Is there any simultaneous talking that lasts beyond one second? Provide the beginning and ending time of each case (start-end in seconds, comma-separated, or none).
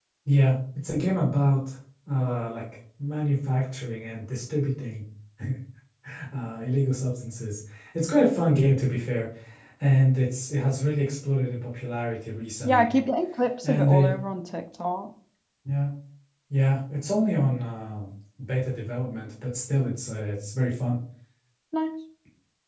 none